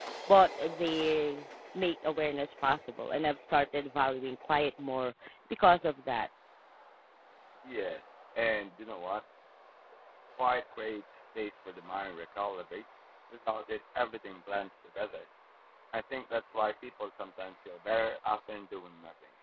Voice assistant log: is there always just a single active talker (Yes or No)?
Yes